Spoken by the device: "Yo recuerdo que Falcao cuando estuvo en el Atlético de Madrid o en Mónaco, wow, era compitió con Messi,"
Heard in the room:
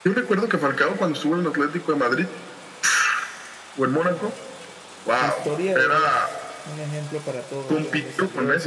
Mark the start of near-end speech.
5 s

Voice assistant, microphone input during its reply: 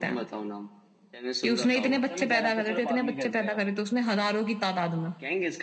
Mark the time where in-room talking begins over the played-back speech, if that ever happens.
2 s

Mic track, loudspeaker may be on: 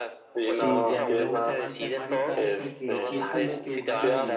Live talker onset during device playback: 0 s

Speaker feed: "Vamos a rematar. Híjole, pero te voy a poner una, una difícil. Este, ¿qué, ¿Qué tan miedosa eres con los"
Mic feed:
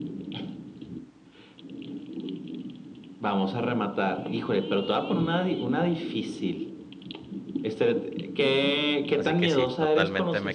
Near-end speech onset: 9 s

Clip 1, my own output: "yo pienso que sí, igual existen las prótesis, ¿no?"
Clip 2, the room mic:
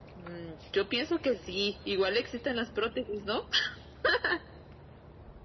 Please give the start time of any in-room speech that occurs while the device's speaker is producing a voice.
none

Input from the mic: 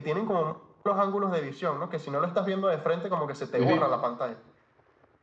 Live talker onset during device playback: 4 s

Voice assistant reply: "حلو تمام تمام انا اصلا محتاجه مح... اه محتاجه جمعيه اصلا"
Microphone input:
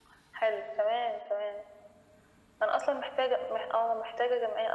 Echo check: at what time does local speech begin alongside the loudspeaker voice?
none

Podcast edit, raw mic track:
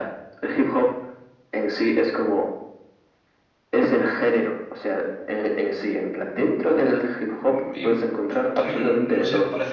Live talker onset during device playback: 7 s

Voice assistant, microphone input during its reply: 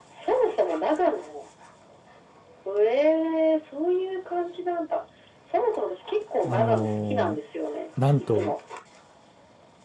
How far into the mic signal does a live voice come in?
6 s

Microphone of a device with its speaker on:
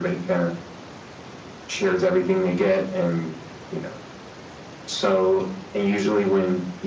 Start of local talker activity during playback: none

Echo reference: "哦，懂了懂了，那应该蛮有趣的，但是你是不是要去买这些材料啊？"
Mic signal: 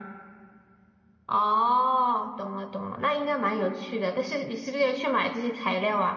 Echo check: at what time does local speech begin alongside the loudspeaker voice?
none

